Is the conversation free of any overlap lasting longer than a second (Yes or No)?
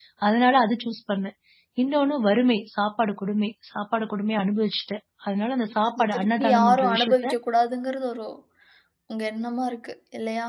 No